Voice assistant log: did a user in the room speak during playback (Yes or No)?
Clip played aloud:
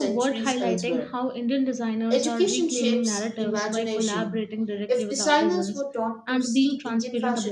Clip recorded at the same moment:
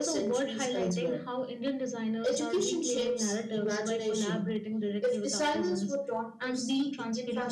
No